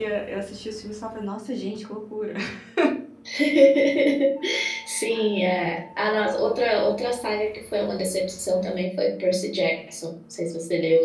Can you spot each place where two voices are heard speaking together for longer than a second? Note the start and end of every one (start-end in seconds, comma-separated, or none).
none